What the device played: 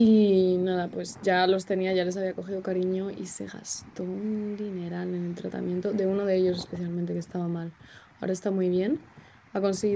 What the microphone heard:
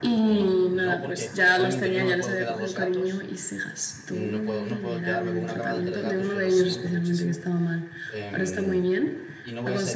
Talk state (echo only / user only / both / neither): both